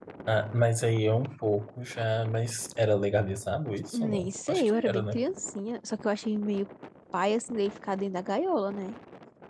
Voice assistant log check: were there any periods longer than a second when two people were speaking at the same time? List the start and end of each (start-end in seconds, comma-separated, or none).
3.9-5.2